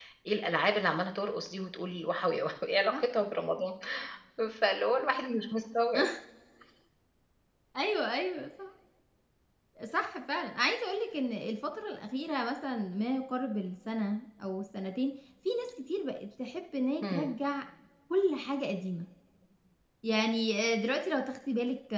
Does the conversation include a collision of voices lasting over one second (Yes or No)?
No